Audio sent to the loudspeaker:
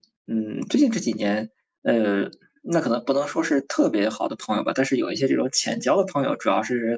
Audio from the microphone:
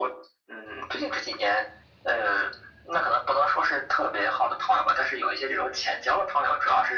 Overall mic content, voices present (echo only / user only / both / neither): echo only